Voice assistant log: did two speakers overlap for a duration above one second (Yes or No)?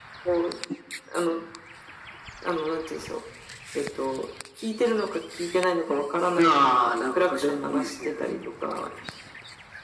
Yes